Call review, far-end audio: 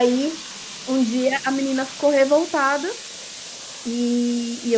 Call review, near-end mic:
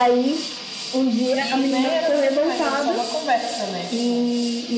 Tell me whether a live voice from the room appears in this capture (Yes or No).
Yes